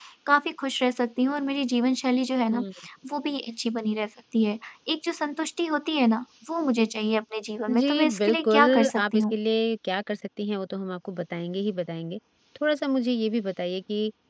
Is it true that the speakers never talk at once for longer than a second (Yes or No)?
No